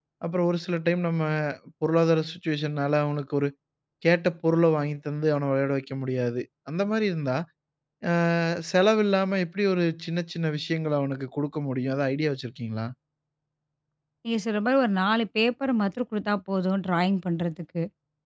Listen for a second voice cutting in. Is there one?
No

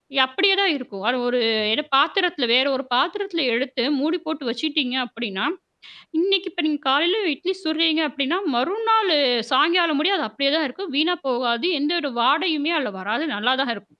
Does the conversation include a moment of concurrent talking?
No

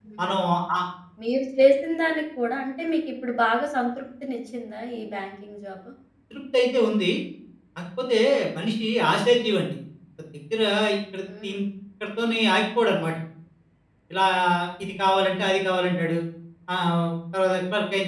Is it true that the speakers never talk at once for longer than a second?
Yes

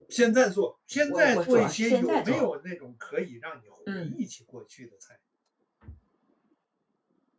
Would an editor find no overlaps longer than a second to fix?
No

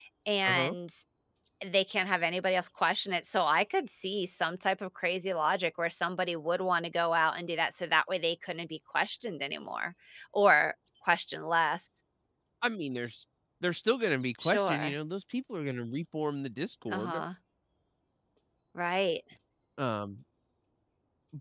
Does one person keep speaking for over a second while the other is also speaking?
No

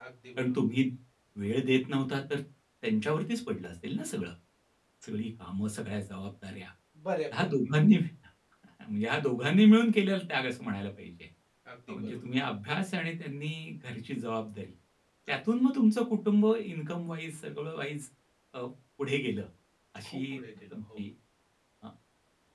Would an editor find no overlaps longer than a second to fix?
Yes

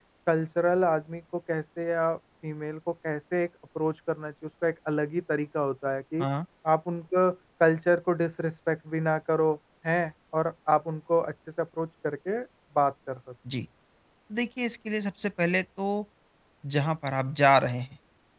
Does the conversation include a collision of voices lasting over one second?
No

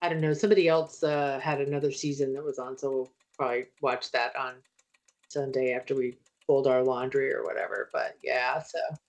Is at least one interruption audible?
No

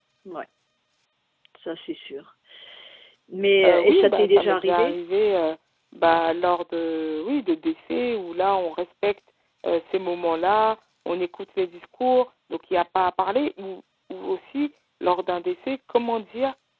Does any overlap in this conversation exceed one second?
Yes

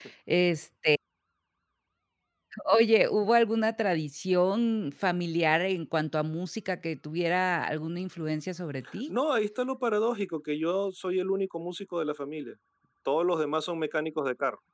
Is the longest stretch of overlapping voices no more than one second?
Yes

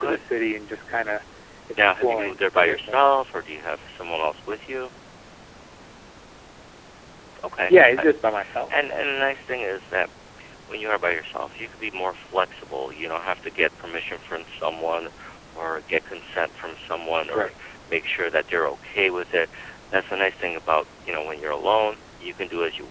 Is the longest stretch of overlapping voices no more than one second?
No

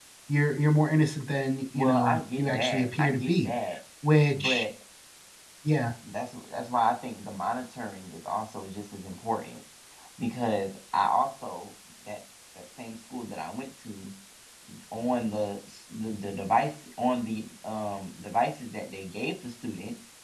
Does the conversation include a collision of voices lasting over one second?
Yes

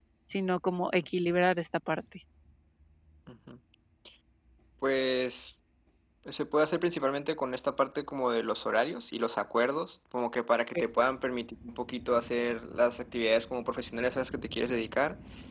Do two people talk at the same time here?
No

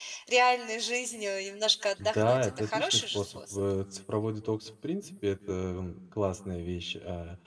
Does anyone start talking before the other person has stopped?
Yes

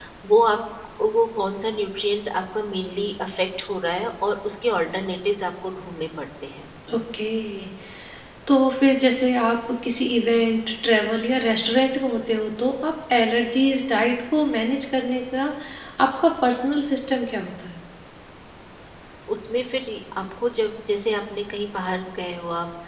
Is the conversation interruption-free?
Yes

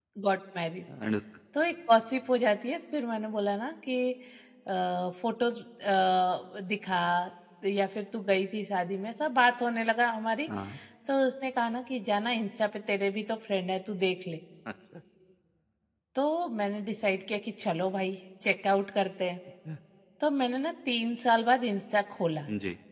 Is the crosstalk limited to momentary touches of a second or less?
Yes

